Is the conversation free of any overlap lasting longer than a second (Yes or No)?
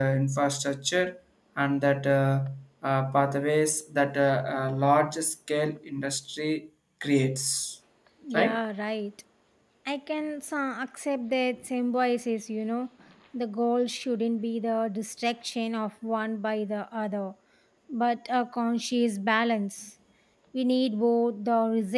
Yes